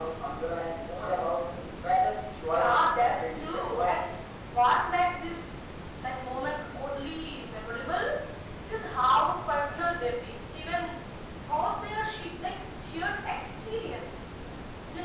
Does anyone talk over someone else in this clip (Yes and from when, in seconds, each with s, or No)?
Yes, from 2.4 s